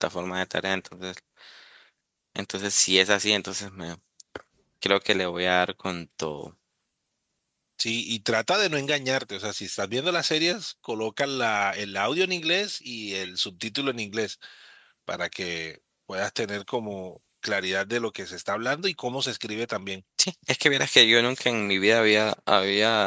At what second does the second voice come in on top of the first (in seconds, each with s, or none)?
none